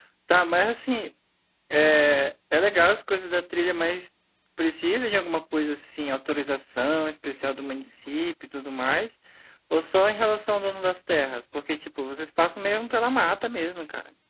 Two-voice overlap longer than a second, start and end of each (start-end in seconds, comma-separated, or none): none